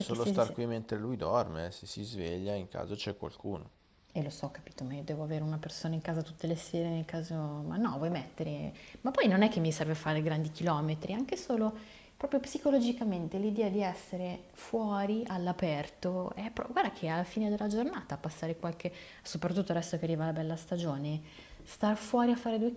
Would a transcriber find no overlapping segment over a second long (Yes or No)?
Yes